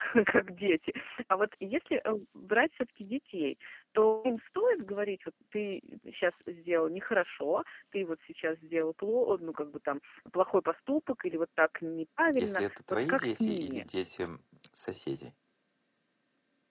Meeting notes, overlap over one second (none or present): present